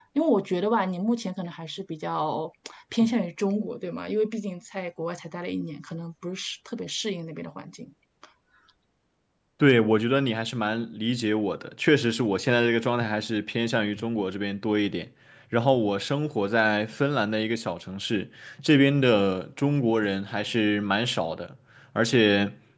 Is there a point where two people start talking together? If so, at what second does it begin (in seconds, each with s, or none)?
none